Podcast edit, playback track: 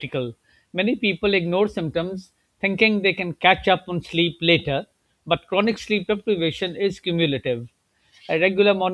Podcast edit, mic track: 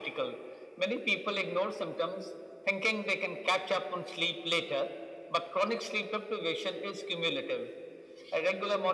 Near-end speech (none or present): none